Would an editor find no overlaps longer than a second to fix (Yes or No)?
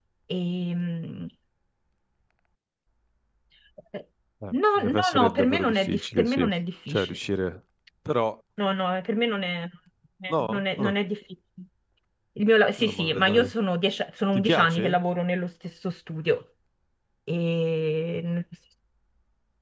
No